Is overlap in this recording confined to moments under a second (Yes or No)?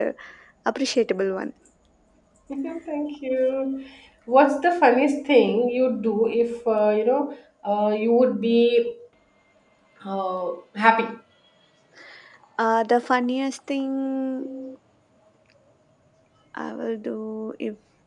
Yes